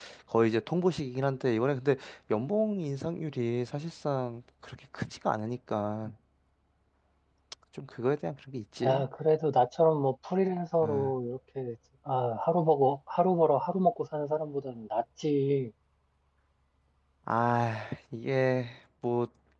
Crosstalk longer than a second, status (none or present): none